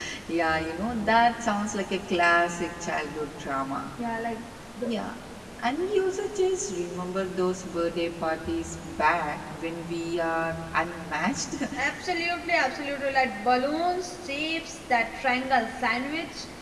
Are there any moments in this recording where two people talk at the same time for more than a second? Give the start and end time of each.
none

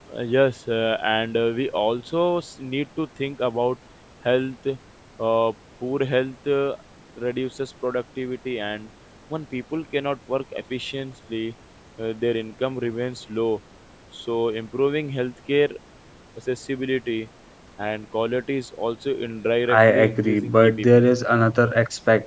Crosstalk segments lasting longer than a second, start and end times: 19.7-21.0

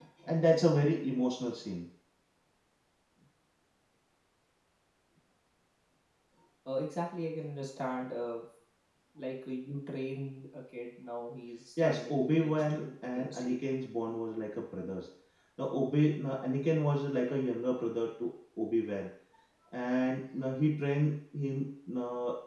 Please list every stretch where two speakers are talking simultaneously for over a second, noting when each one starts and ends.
11.8-13.7

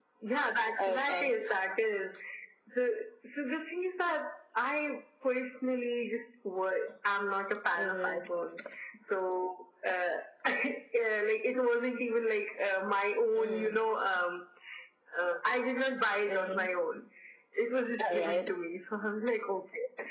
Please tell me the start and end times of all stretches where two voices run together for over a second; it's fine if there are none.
none

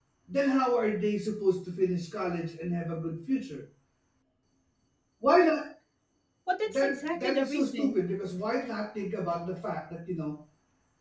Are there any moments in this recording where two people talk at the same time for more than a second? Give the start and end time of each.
6.7-8.0

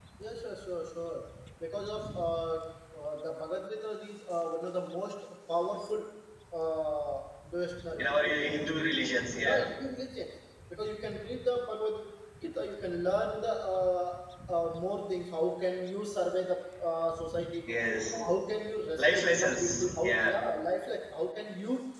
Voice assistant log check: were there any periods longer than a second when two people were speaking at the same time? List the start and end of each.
19.0-20.4

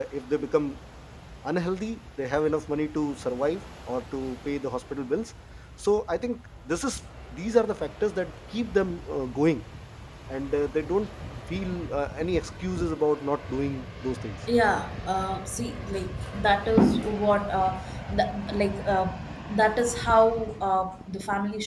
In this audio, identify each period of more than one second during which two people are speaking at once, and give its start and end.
none

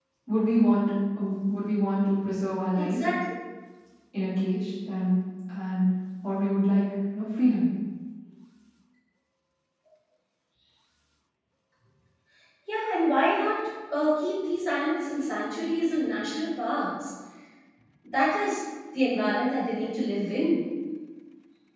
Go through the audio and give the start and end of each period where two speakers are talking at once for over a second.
none

